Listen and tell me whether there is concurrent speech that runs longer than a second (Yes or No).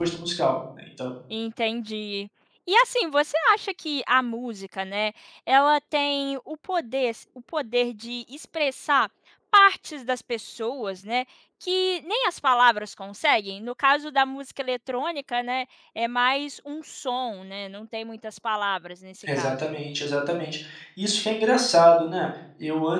No